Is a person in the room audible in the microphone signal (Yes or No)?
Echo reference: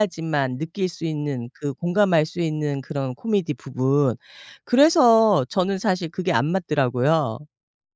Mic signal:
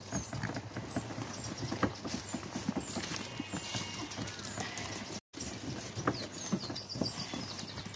No